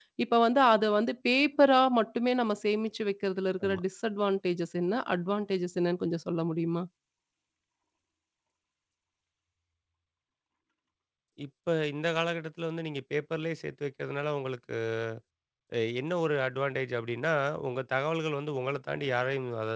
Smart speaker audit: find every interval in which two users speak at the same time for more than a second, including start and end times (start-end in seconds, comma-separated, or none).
none